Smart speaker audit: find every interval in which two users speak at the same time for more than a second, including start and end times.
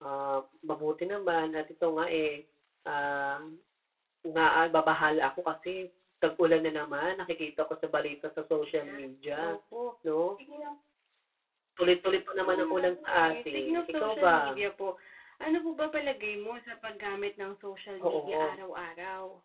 12.3-14.4

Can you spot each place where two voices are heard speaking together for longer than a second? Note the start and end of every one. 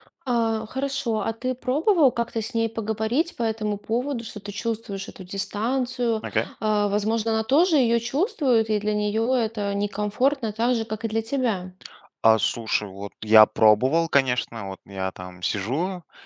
none

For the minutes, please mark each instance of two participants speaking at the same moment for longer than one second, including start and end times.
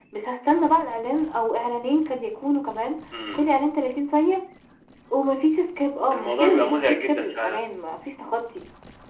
6.1-7.6

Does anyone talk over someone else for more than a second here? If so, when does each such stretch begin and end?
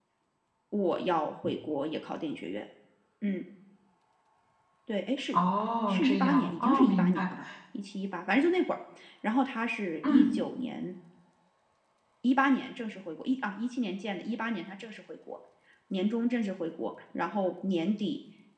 5.9-7.3

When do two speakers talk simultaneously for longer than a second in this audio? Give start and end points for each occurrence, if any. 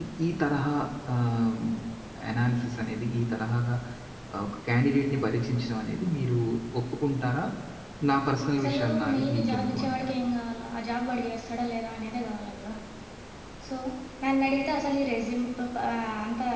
8.6-10.1

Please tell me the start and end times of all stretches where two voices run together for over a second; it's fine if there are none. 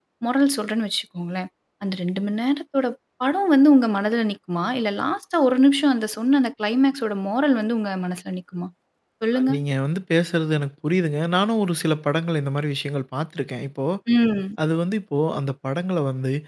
none

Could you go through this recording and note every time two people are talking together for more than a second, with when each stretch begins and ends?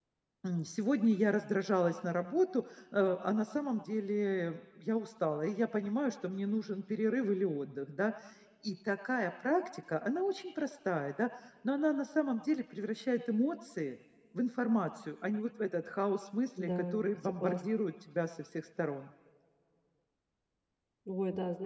16.6-17.8

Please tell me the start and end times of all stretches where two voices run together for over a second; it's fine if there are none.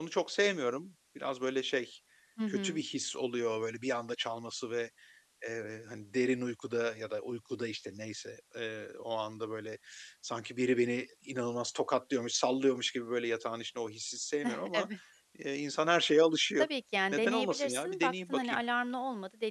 17.1-18.6

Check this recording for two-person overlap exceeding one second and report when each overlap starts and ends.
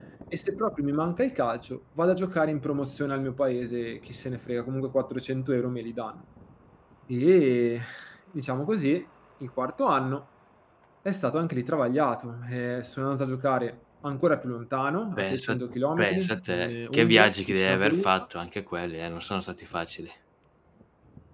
16.0-18.1

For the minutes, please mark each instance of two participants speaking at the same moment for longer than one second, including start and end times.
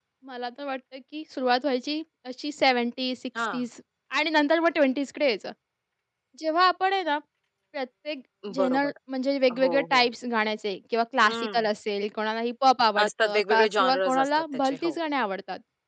13.0-15.0

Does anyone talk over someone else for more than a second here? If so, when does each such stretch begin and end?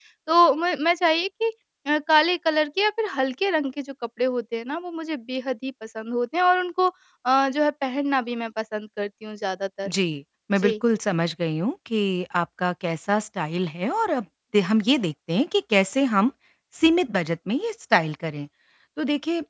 none

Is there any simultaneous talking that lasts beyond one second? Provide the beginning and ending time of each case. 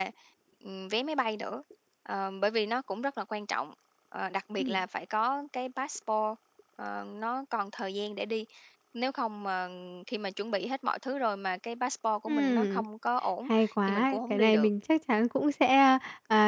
13.5-14.7

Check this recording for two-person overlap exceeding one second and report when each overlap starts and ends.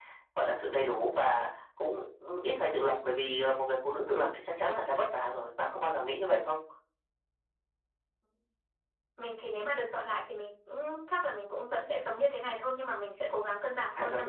none

